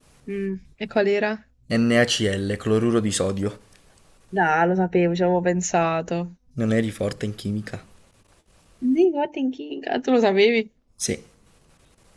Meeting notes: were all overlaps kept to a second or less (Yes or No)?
Yes